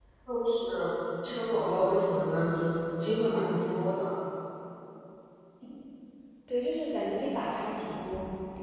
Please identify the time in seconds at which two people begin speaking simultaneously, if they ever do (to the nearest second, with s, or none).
none